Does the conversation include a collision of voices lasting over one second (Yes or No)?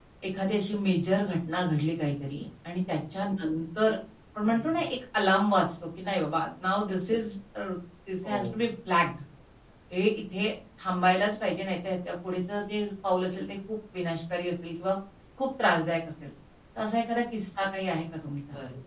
No